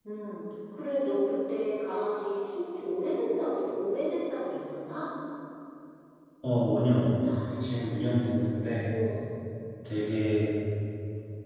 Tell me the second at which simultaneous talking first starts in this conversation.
none

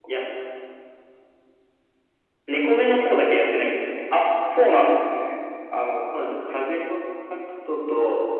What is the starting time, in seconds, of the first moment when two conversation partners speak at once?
none

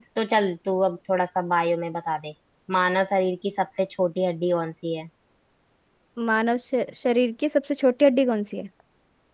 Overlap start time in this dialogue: none

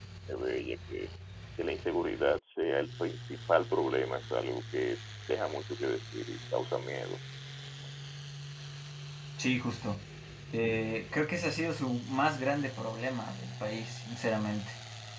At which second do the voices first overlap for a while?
none

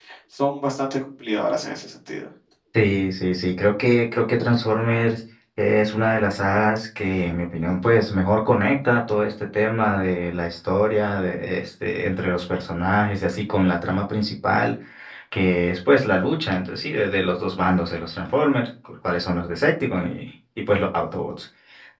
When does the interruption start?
none

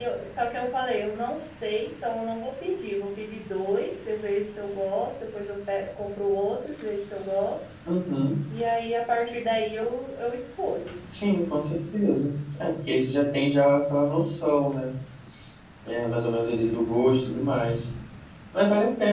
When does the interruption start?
none

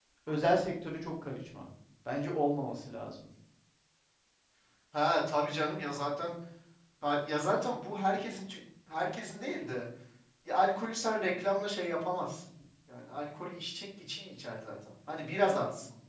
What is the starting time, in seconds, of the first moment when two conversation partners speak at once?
none

